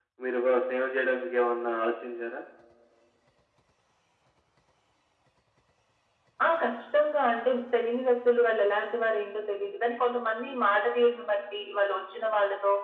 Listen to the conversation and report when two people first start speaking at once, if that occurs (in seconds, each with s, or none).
none